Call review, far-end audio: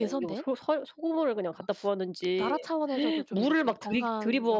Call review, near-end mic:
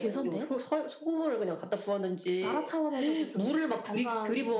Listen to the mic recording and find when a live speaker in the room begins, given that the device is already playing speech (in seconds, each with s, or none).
none